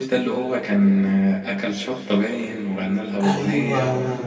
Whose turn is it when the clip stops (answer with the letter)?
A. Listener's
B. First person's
B